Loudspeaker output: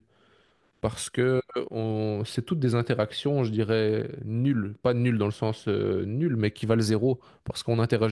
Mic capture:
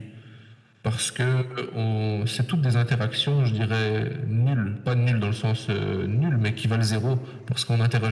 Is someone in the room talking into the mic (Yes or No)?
No